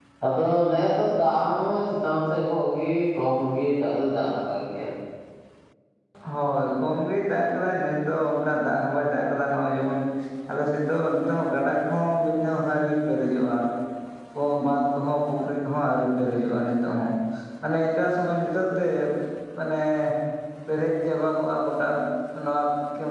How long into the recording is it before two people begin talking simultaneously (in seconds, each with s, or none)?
none